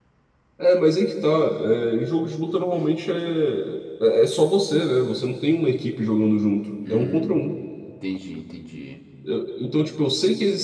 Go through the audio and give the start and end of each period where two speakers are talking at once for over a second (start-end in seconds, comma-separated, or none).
none